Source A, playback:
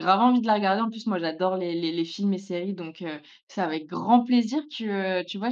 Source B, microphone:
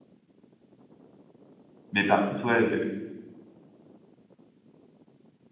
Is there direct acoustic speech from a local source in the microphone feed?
Yes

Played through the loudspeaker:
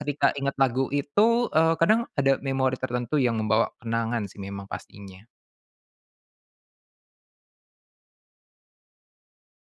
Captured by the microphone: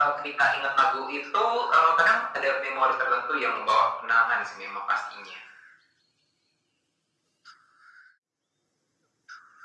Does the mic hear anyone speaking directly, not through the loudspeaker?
No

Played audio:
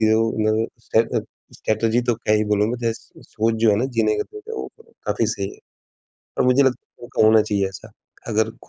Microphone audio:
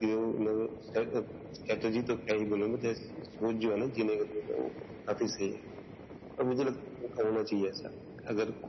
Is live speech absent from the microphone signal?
Yes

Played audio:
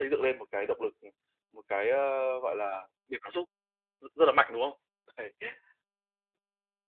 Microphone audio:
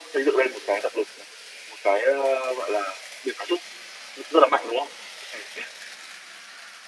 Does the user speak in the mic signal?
No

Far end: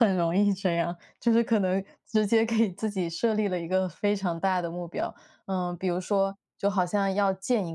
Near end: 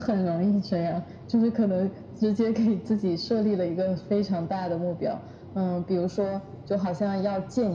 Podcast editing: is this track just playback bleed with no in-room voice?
Yes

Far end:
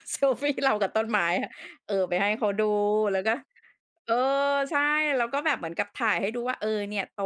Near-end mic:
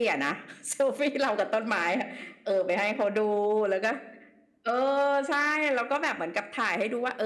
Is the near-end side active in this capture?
No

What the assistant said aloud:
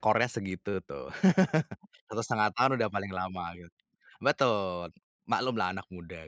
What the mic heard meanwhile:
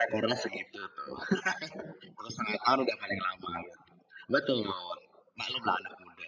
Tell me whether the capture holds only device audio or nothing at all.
Yes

